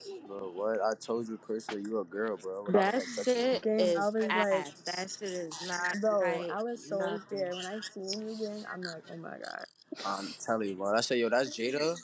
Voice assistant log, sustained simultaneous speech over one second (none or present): present